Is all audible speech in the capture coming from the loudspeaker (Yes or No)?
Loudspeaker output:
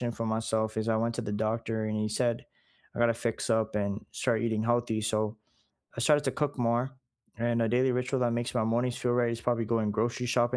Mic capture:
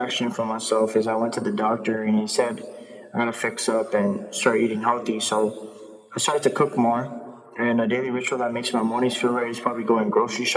Yes